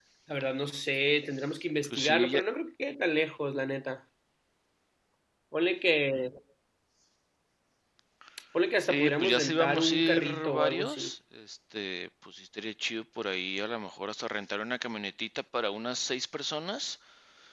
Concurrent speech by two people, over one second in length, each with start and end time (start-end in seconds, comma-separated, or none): 8.8-11.0